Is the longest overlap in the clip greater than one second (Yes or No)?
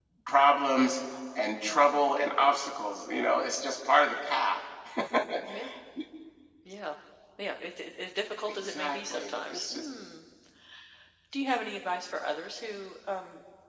Yes